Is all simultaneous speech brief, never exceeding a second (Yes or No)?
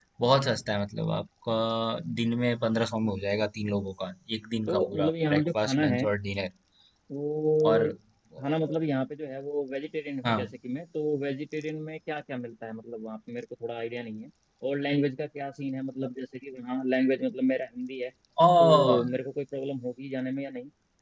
No